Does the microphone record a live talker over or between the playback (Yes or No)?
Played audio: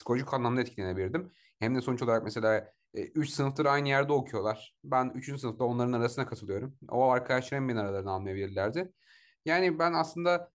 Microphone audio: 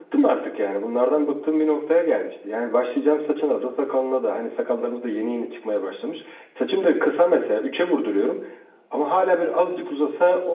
Yes